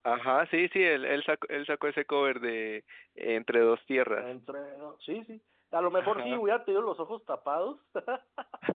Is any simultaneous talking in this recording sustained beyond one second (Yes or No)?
No